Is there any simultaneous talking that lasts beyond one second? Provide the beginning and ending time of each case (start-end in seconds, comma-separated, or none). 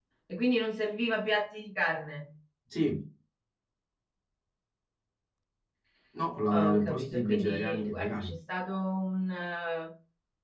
6.5-8.3